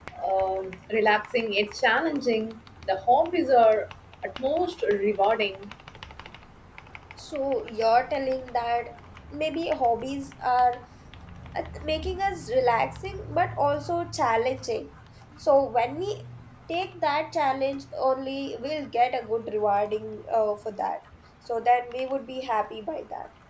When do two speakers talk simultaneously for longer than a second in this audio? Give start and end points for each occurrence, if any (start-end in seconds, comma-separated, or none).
none